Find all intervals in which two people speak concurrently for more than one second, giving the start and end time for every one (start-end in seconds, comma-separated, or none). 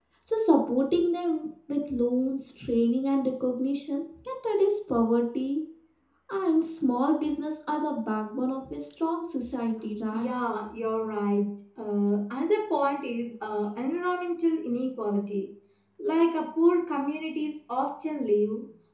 none